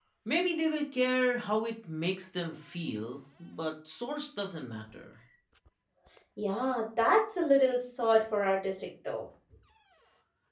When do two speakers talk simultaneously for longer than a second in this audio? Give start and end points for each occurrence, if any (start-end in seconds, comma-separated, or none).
none